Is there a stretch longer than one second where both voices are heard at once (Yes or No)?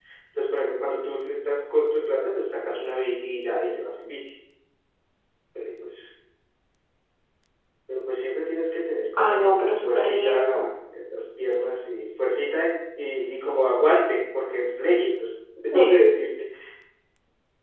Yes